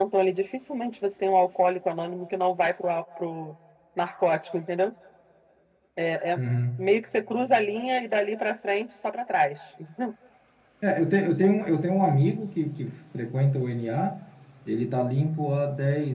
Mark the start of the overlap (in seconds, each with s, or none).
none